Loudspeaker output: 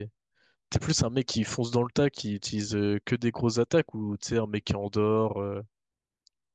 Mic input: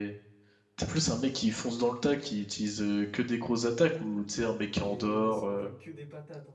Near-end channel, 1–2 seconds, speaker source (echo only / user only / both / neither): echo only